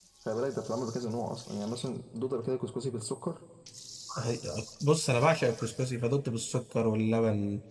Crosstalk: none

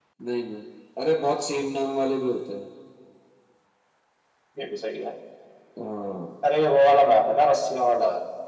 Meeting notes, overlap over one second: none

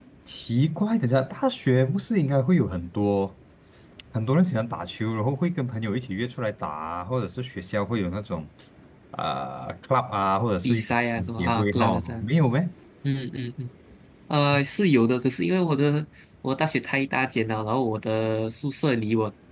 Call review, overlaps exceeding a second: present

